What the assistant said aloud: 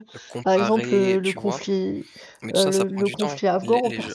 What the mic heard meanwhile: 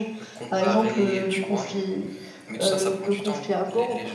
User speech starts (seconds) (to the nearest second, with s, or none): none